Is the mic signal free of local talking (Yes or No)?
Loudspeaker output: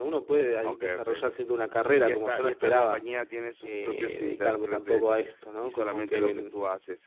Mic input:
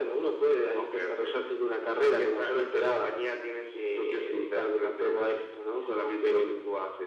Yes